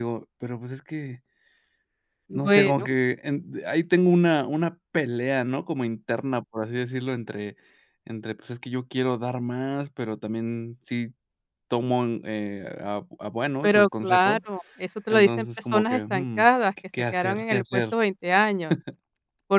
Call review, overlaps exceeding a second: present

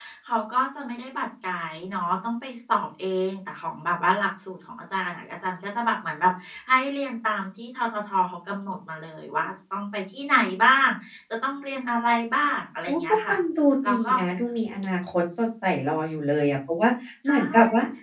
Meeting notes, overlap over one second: none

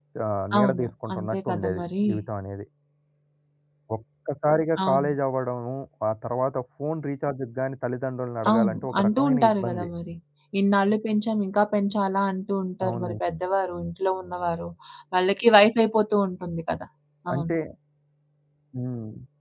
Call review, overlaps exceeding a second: present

